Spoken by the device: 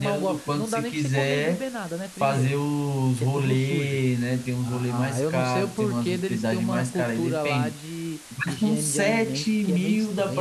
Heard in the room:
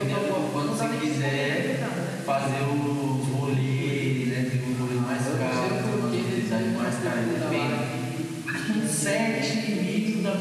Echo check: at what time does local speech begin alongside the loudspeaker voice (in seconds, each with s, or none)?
none